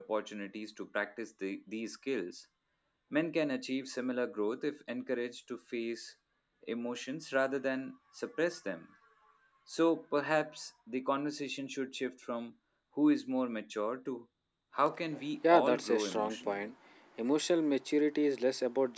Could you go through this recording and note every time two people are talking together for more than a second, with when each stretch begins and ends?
15.5-16.7

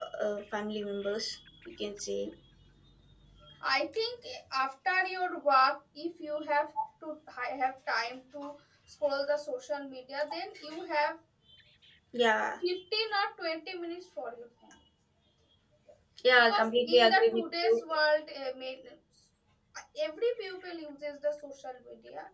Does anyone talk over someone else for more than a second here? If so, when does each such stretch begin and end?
16.5-17.8

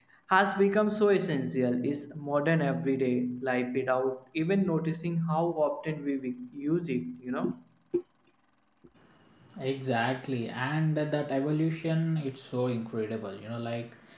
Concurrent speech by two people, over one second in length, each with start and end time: none

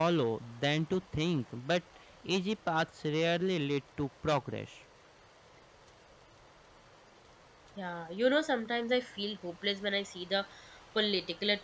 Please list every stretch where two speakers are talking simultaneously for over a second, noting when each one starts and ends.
none

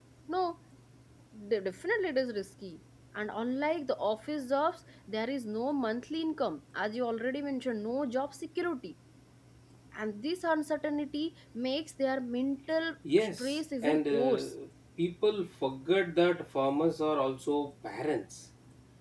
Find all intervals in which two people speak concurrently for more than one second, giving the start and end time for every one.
13.2-14.5

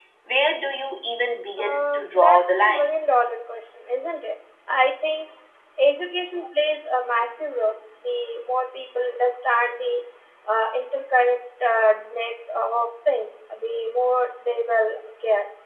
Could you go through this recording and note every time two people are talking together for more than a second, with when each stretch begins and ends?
1.6-3.0

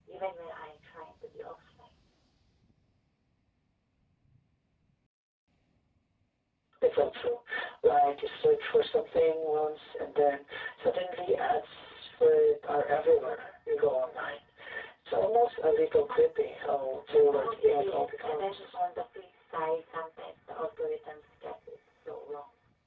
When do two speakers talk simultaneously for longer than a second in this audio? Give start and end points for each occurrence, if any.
17.3-18.8

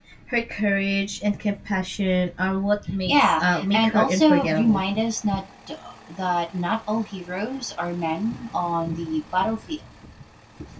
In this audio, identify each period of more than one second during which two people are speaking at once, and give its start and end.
3.0-4.8

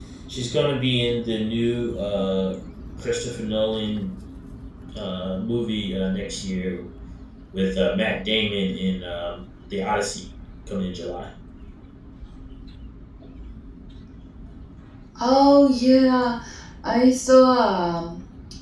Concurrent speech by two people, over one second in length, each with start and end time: none

